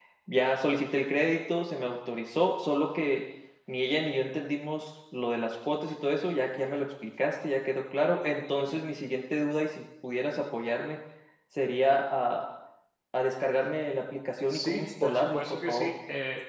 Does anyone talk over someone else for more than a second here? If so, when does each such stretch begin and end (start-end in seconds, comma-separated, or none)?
14.5-15.9